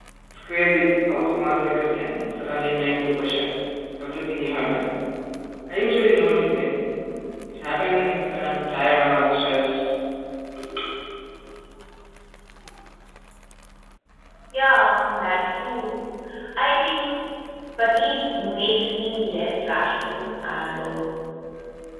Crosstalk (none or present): none